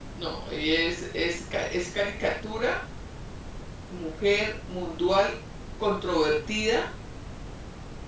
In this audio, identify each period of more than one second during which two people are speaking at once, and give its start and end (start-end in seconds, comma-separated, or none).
none